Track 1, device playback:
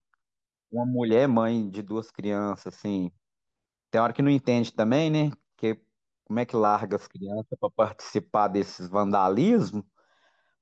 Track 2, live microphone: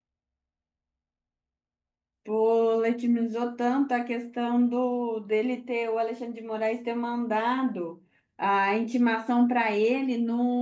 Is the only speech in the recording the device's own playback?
No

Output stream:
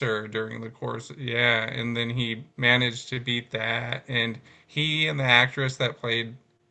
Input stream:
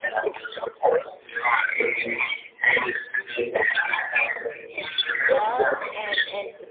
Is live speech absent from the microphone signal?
No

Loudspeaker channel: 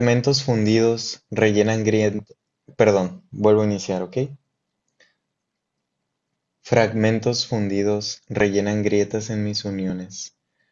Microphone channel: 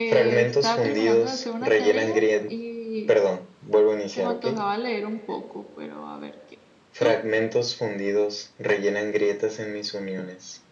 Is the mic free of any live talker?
No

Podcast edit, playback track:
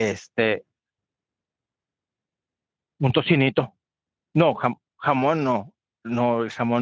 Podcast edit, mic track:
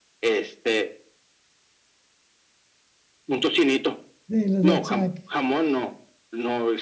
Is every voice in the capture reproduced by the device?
No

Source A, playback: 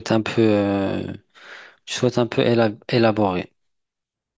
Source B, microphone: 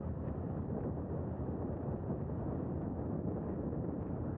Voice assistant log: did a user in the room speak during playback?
No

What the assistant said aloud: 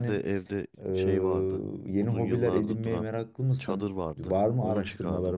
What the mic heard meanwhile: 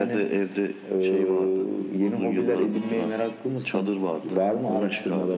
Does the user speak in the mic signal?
No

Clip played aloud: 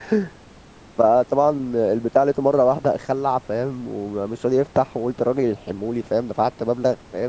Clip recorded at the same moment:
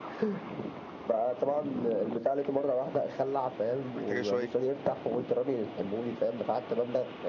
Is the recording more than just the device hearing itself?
Yes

